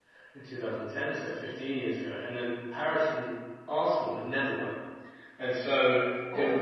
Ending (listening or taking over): taking over